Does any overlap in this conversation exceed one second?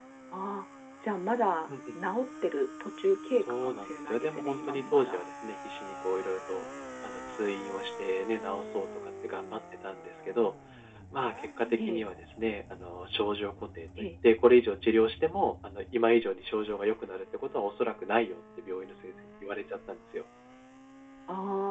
Yes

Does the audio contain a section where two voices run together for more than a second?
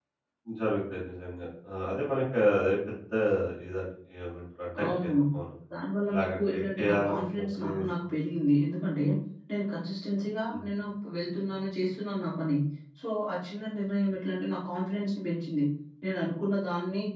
Yes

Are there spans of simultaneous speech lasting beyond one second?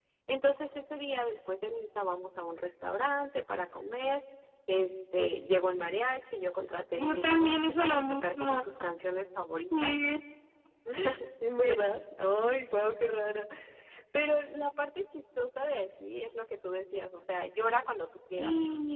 Yes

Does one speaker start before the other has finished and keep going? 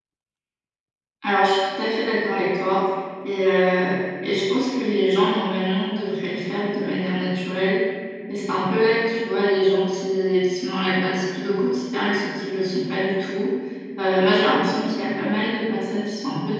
No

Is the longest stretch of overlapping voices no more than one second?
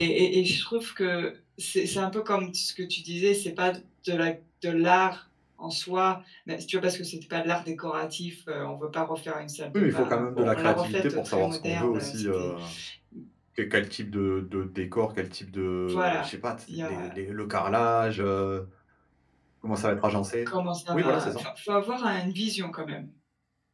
No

